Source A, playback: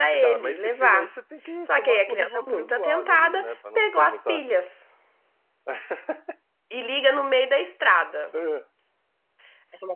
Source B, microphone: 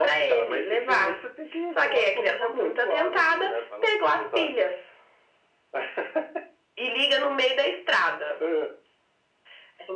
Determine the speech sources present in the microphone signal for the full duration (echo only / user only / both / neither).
echo only